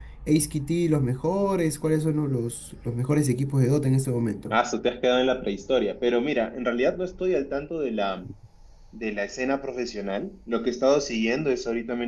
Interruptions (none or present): none